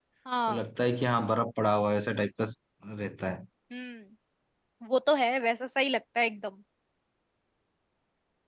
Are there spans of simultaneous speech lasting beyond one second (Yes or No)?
No